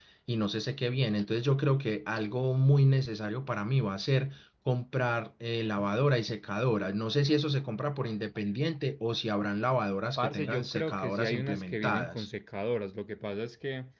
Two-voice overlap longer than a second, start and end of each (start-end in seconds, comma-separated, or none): 10.2-12.3